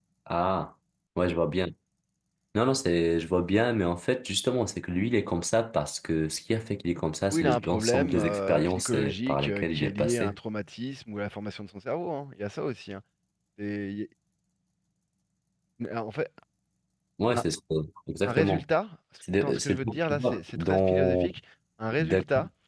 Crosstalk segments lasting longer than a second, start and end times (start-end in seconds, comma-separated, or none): 7.3-10.3, 19.3-21.3